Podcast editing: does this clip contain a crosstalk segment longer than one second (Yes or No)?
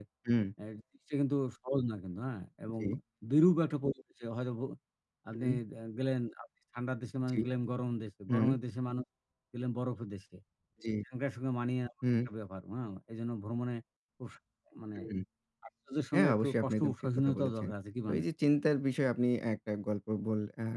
Yes